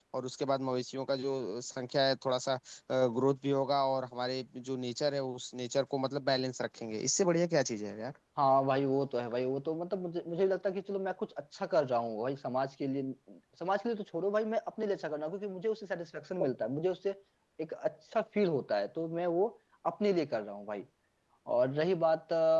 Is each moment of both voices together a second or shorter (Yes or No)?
Yes